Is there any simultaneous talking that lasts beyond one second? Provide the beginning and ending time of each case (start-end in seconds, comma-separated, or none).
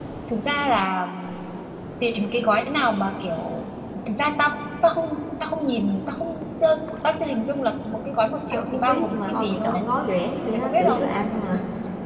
8.5-9.8